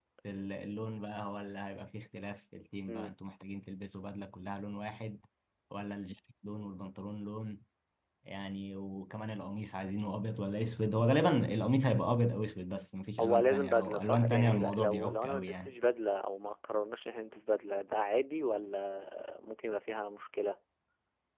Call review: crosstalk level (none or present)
present